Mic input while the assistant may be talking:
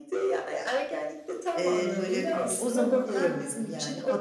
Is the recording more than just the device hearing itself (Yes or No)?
Yes